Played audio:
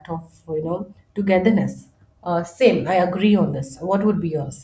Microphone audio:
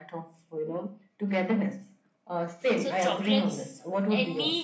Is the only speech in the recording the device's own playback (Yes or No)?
No